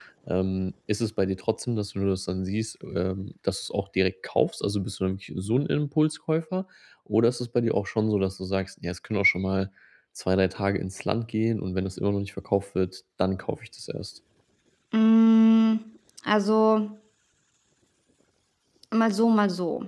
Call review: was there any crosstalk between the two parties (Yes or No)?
No